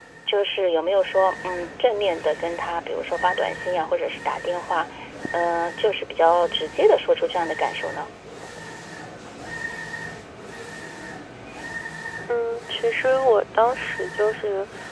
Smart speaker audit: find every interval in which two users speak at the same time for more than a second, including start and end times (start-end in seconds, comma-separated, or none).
none